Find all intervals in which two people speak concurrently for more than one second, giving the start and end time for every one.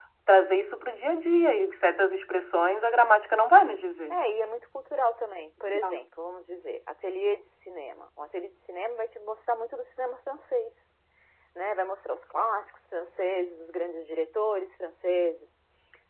none

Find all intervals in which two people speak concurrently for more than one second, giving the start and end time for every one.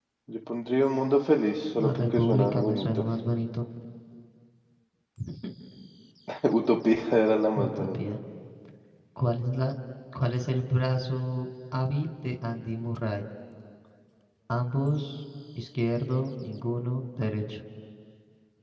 1.8-3.0

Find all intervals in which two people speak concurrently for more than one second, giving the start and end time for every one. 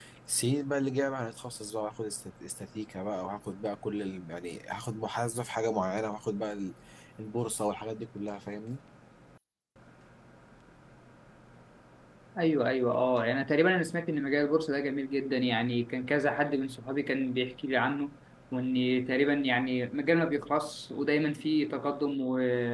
none

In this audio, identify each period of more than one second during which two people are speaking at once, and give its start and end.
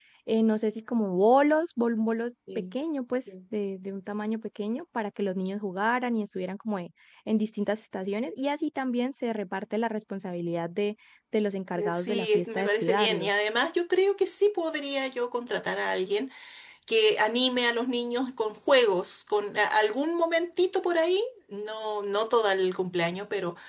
11.8-13.3

